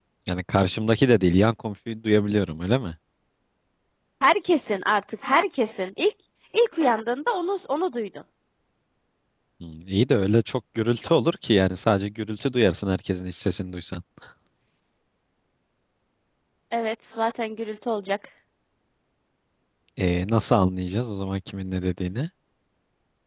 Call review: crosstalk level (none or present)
none